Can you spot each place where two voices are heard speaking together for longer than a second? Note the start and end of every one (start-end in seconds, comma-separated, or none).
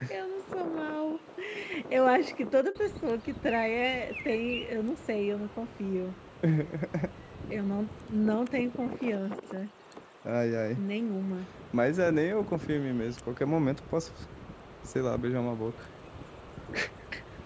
none